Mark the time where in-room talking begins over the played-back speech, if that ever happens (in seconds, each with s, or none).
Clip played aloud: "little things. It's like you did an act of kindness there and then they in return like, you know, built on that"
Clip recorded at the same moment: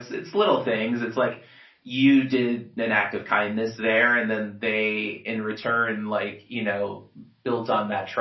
none